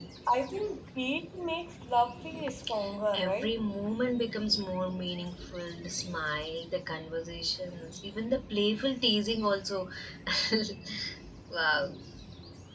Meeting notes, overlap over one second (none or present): none